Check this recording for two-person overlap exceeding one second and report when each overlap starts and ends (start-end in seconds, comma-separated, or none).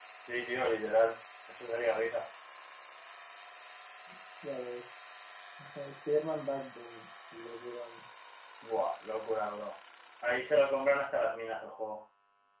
none